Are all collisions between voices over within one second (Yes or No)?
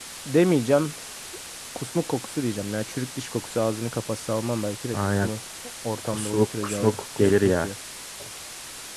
No